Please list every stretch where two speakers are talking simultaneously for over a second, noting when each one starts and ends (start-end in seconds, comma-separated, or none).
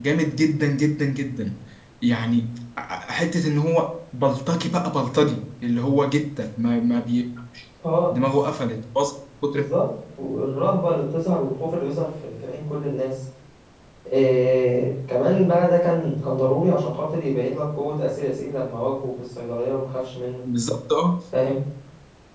none